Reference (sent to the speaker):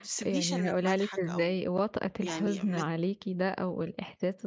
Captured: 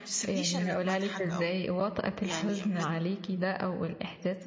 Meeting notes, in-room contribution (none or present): none